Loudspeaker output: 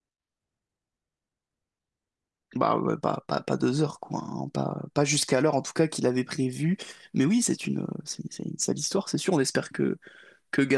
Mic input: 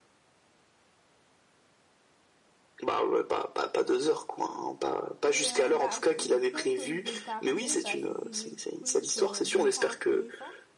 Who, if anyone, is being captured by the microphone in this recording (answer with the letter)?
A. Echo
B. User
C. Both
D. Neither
C